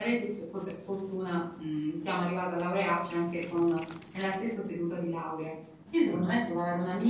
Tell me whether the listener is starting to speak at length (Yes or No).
No